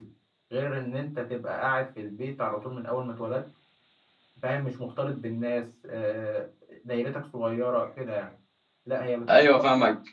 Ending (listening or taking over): listening